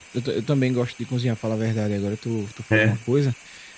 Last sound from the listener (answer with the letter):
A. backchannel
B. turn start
A